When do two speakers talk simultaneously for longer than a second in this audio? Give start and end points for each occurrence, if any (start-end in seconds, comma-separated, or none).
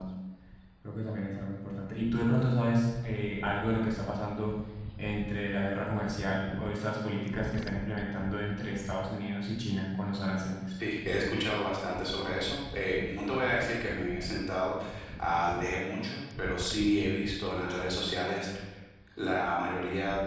none